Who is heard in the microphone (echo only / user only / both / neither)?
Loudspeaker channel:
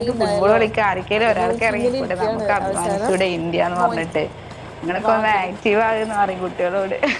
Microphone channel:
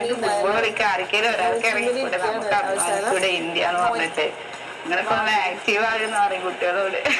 echo only